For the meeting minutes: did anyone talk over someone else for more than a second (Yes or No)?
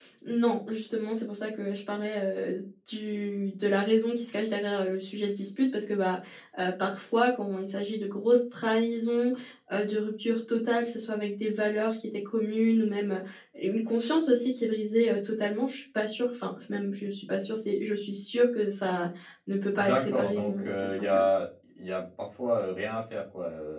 Yes